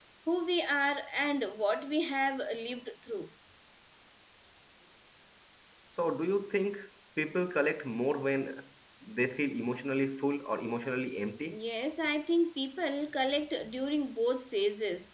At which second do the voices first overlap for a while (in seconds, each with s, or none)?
none